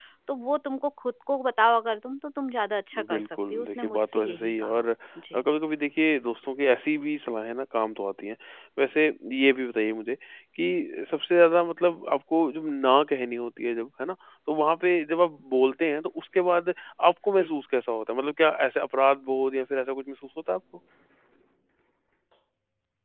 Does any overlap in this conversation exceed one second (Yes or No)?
Yes